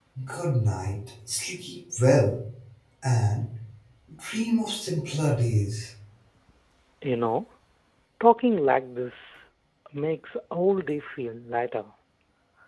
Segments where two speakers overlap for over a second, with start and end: none

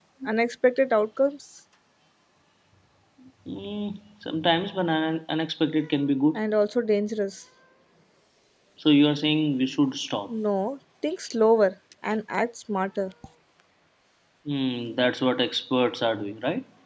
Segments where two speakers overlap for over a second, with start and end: none

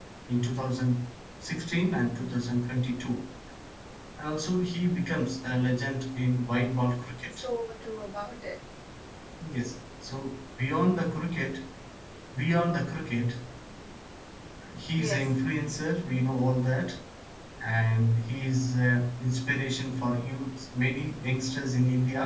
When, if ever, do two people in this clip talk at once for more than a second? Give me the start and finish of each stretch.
none

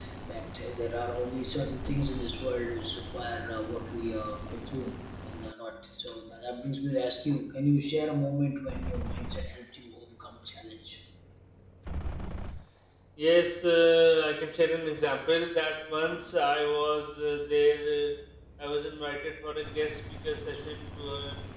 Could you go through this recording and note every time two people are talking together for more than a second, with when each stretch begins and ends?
none

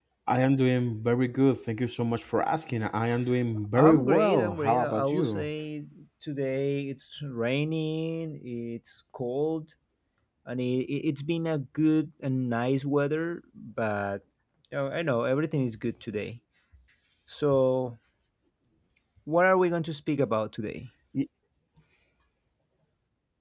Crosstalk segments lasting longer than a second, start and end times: 3.8-5.5

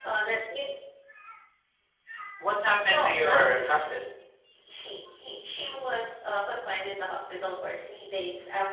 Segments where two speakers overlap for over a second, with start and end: 2.8-4.1

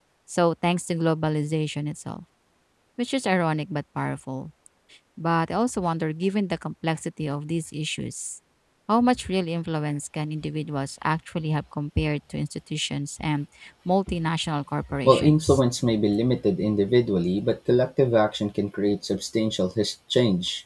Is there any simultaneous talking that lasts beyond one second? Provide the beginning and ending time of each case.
none

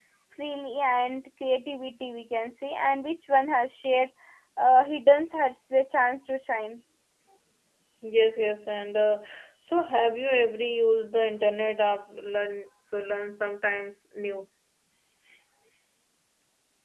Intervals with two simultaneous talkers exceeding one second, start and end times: none

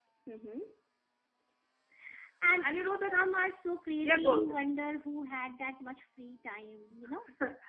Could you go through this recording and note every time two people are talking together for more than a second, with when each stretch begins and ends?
none

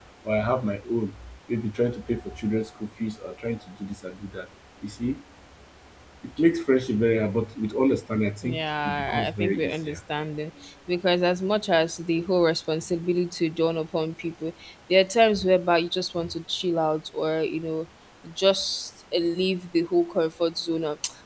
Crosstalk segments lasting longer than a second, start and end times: 8.4-10.0

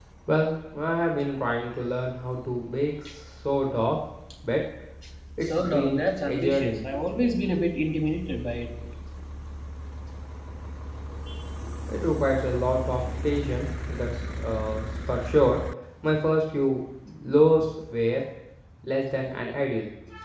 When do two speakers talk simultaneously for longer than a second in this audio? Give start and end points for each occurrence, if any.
5.4-6.9

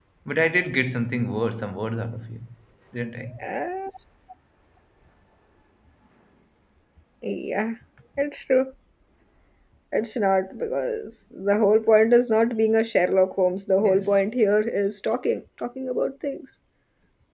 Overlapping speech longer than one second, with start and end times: none

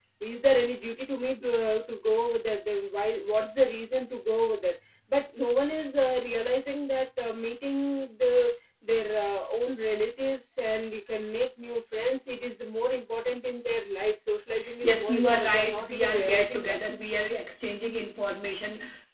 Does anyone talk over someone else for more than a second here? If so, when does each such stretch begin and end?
14.8-16.8

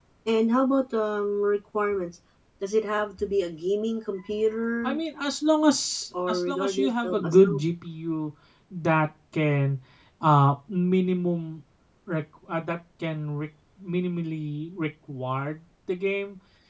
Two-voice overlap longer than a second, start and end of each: 6.3-7.6

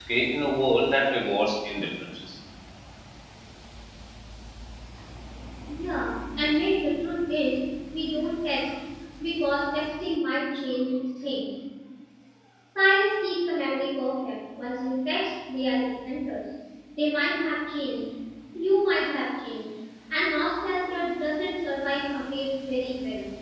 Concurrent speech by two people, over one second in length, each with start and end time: none

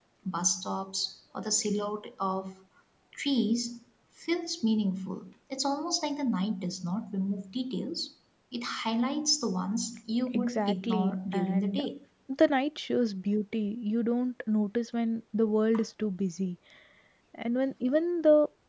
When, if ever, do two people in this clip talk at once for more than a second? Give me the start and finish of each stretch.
10.3-11.8

